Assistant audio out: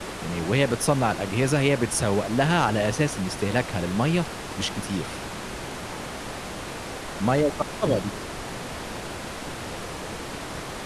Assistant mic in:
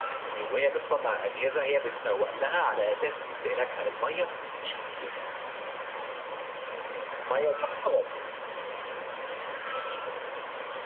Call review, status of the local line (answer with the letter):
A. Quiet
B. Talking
A